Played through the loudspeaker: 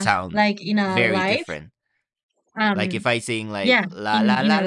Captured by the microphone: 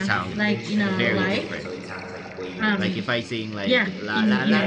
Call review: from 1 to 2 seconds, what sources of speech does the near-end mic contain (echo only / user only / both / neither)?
both